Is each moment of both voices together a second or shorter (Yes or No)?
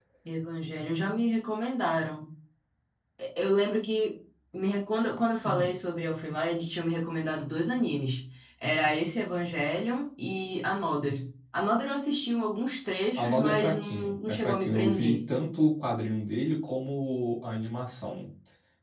No